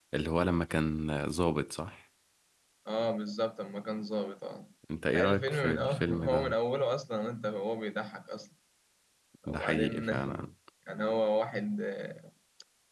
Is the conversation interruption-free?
No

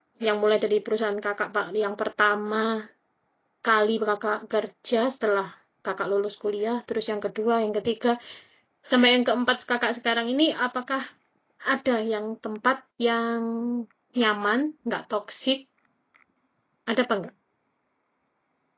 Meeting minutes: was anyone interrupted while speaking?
No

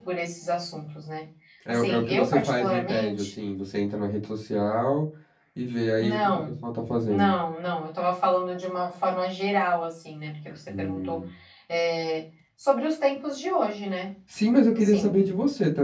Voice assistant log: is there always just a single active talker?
No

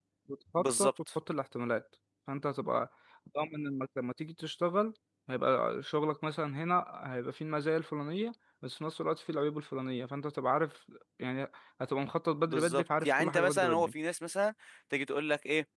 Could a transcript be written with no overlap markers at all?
No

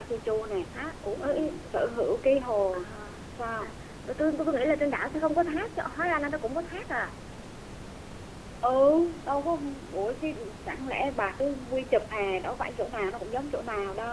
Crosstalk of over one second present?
No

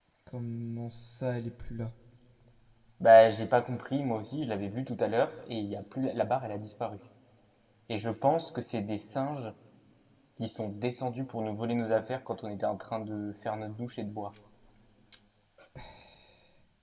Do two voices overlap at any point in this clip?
No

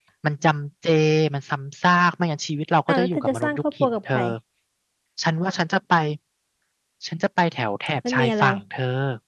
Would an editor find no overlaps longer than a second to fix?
No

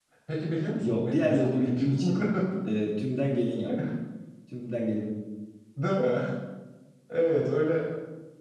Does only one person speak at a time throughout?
No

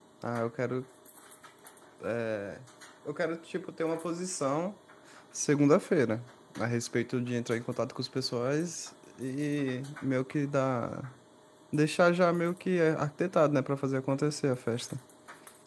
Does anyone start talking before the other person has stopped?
No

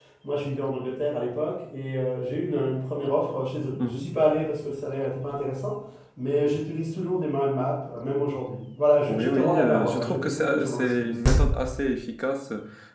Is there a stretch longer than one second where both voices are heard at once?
Yes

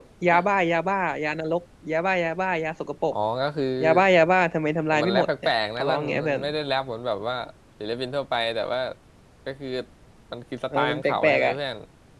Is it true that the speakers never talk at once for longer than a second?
No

